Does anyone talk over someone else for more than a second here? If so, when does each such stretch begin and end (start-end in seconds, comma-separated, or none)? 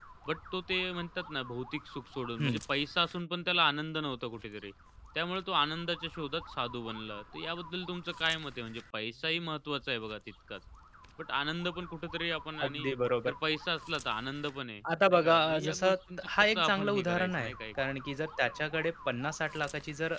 15.1-17.6